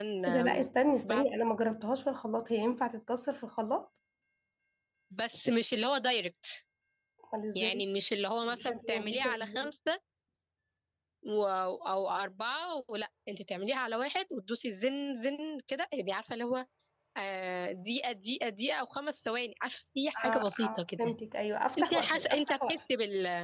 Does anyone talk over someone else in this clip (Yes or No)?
Yes